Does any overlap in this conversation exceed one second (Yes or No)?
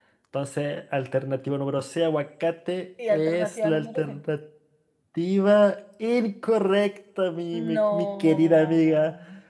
Yes